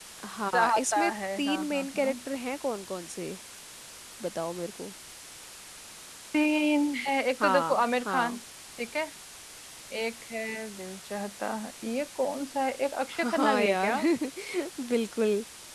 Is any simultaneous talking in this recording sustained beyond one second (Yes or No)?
Yes